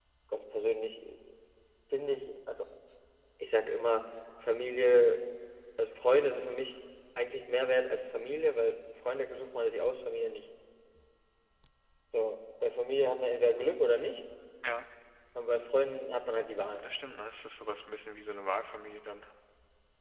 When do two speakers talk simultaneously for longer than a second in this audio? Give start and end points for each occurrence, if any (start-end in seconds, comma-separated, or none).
none